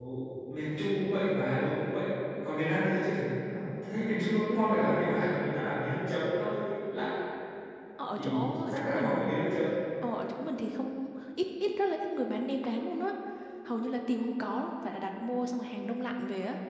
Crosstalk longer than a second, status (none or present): present